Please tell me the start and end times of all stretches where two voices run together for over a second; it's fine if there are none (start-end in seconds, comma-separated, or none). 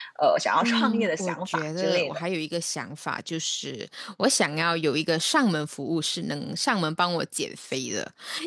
0.6-2.2